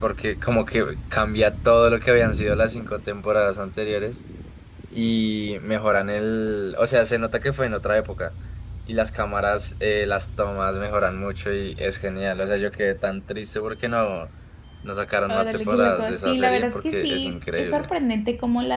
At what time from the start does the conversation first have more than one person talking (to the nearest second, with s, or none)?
15 s